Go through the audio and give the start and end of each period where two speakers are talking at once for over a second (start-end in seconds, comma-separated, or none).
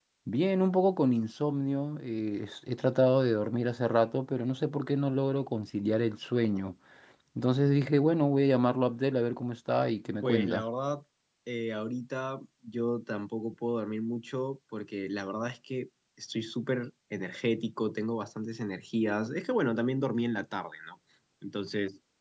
none